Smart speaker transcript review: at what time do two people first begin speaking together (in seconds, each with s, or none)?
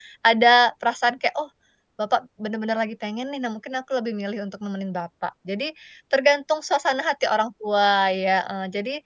none